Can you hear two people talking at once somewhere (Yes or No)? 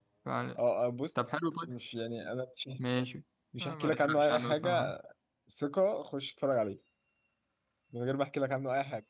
Yes